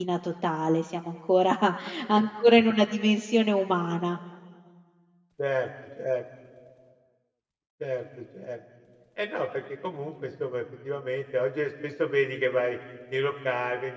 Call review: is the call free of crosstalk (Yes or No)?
Yes